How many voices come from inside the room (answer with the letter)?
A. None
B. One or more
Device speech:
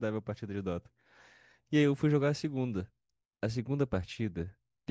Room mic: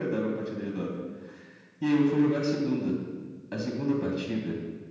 A